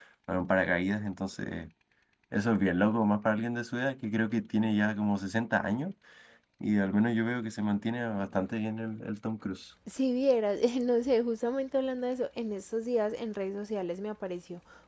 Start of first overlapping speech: none

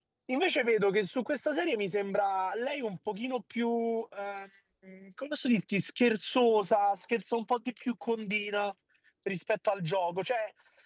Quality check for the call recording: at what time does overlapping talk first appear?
none

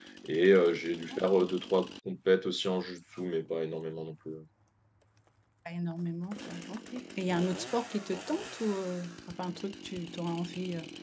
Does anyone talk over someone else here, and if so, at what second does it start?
none

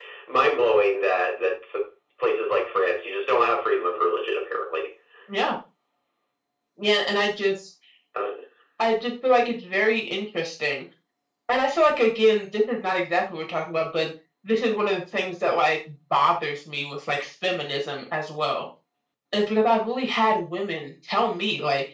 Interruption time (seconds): none

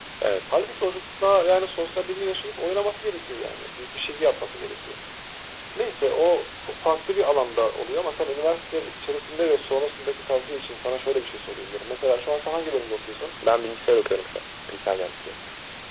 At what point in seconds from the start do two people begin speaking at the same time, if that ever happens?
none

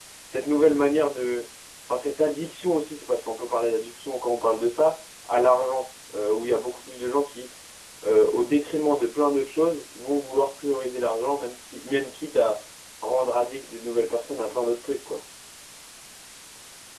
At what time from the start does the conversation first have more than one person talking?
none

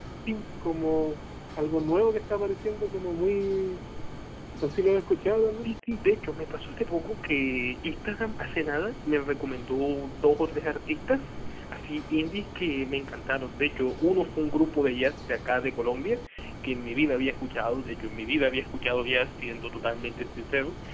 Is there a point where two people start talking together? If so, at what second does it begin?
none

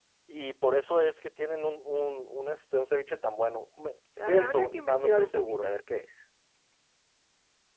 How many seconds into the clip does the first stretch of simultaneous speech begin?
4 s

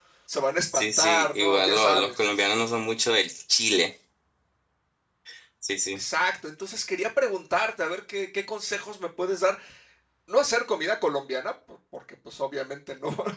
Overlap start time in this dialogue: 1 s

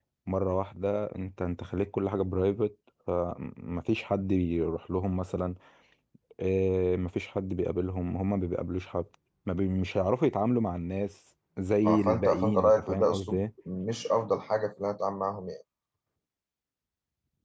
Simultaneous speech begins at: 12 s

